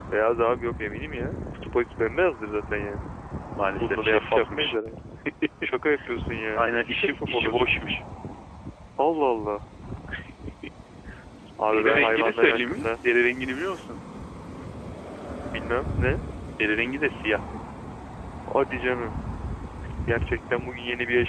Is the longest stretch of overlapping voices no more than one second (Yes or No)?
No